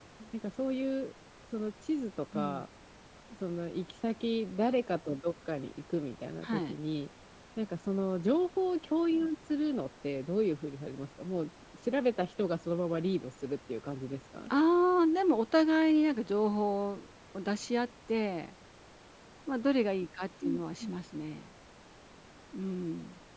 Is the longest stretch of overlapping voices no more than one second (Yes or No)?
Yes